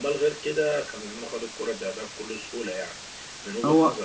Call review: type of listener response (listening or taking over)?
listening